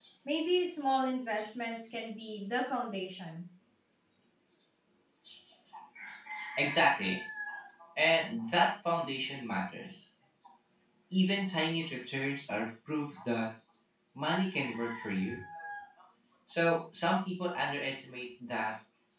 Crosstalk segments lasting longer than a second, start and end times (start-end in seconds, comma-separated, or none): none